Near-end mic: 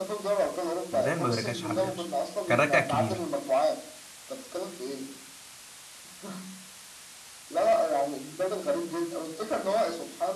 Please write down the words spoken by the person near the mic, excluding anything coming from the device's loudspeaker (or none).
ريال ما بيرجعش حد يا باشا كان رجع الكبير